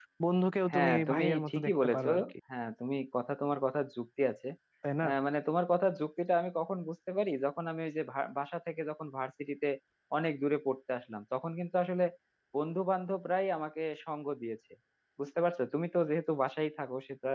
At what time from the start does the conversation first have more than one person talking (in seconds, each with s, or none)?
0.7 s